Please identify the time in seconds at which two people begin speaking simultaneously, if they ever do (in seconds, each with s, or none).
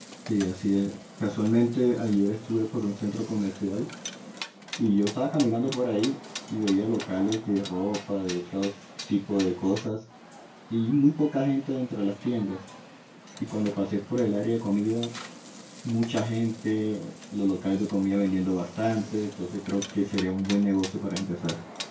none